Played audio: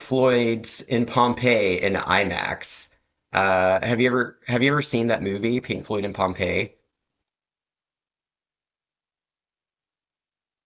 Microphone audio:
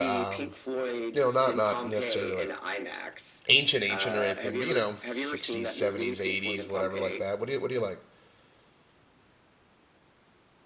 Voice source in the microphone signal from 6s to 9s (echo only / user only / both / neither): both